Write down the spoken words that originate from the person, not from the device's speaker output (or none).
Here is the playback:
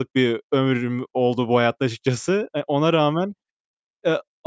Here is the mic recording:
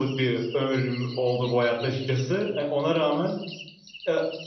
none